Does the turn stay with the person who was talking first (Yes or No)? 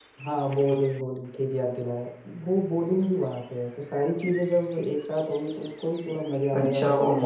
No